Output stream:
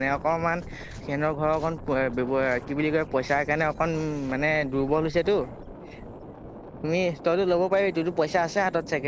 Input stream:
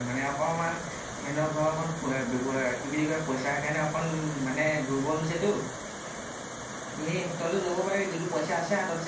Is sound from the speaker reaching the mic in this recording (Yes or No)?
Yes